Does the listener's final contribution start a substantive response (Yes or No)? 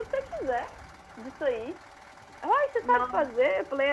No